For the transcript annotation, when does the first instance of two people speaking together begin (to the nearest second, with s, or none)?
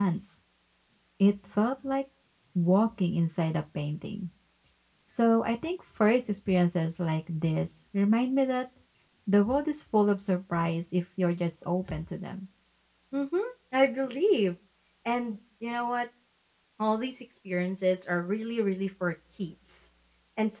none